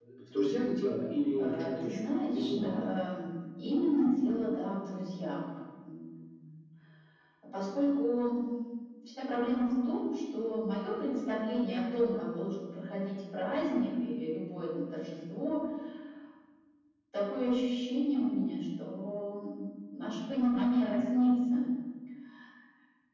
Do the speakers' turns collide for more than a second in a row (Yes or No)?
Yes